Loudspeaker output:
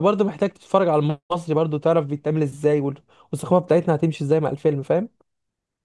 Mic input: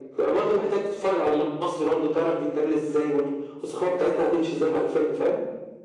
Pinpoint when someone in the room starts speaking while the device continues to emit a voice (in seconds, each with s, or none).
none